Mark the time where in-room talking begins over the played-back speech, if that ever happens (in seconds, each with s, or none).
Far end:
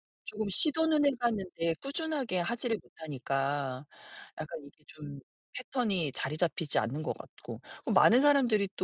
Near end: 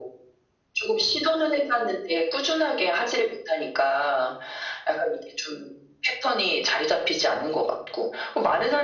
none